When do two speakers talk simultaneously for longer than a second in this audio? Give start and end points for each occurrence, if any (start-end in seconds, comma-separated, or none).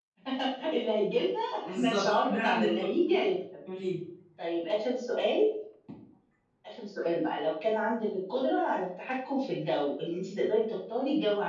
1.6-2.9